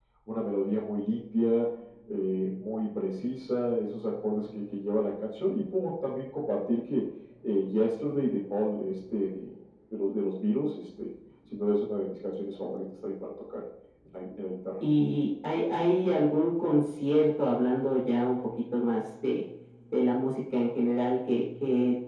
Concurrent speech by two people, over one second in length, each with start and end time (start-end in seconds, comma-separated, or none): none